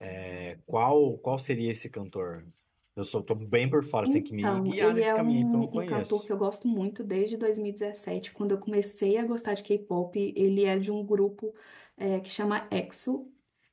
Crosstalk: present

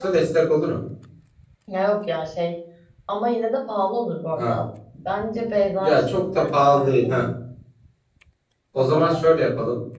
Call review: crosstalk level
present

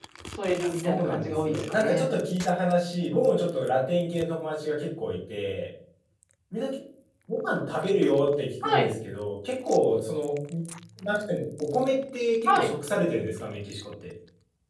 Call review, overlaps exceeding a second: present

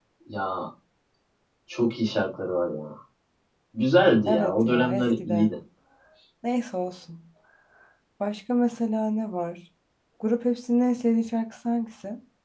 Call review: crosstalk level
present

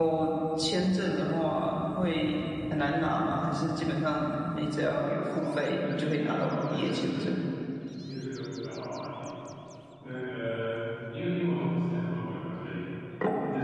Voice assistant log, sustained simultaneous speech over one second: present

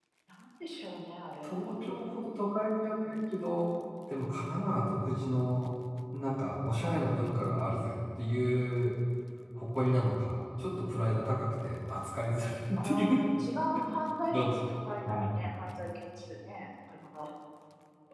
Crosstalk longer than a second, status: none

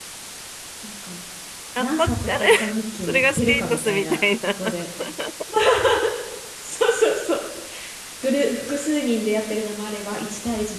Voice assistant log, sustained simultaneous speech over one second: present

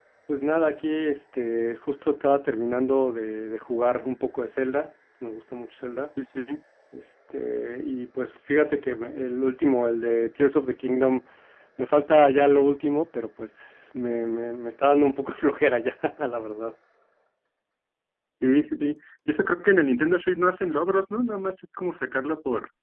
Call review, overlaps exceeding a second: none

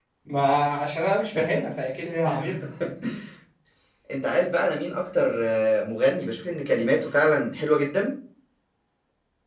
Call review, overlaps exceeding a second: none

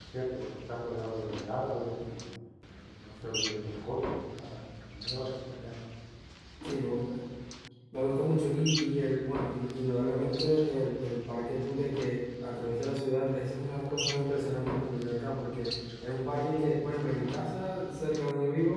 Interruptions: none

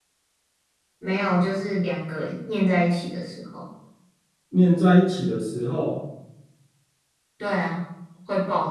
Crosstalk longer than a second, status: none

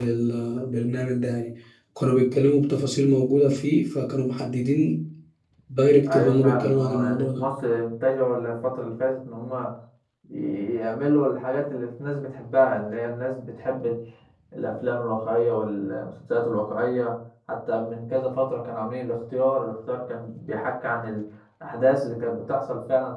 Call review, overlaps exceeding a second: present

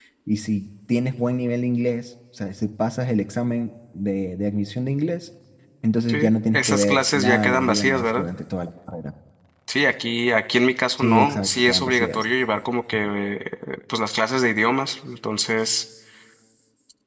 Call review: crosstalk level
present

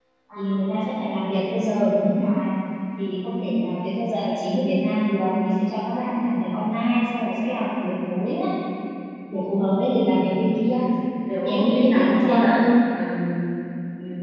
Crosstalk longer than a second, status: present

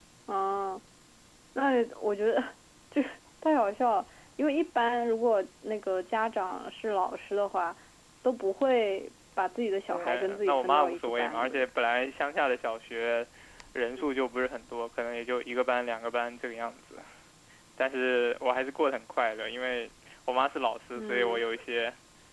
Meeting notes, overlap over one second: present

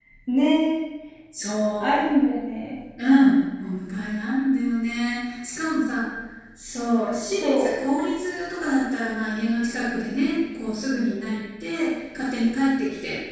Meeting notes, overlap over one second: none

